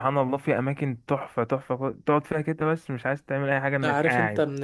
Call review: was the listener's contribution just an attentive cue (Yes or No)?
No